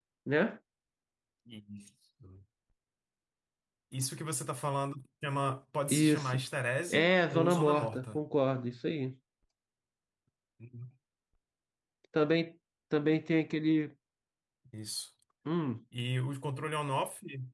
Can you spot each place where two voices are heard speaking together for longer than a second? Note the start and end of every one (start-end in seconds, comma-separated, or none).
6.9-8.2